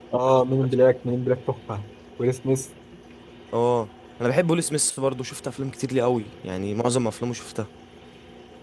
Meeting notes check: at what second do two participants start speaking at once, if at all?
none

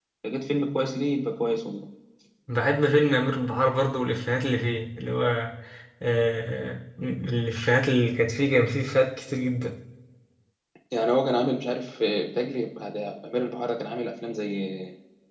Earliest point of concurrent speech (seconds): none

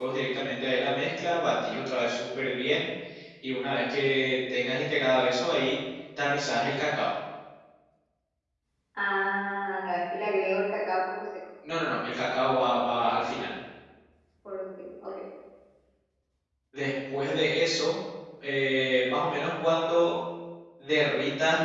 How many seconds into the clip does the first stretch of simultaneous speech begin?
none

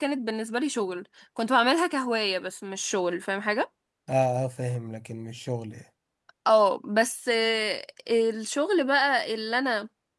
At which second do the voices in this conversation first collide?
none

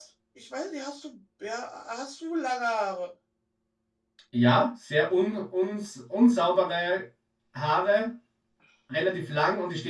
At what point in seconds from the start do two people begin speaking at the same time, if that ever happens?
none

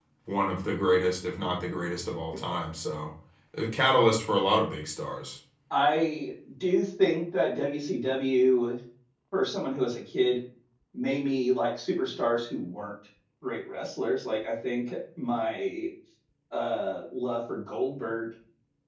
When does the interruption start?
none

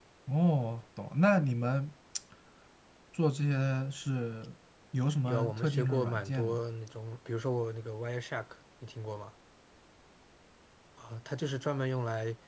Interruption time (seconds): 5.3 s

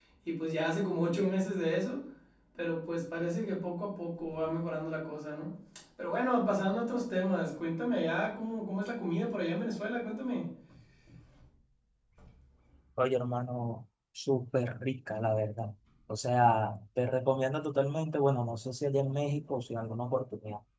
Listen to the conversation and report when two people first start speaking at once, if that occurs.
none

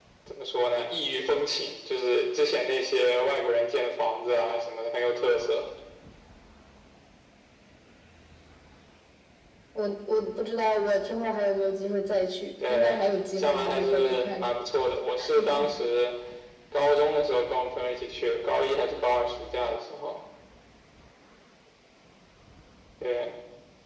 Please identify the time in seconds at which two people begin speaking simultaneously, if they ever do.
12.7 s

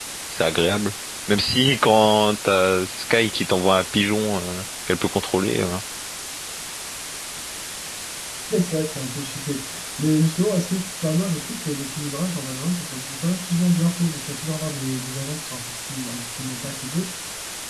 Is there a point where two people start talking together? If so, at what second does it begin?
none

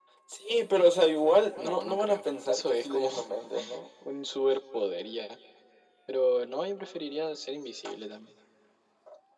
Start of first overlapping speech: 1.6 s

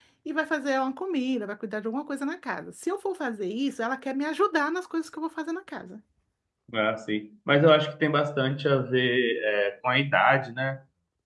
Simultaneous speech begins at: none

